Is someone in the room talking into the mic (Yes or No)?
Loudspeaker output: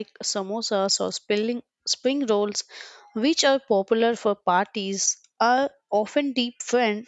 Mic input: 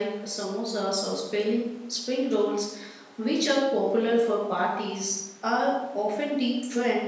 No